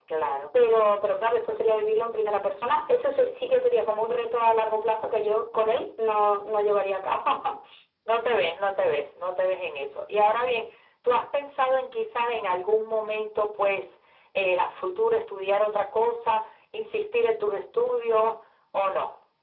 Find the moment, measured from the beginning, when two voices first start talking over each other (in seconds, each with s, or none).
none